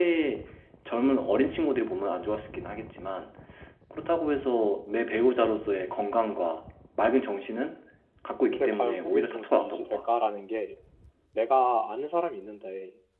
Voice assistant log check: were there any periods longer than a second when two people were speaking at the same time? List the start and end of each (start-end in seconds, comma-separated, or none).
8.5-10.1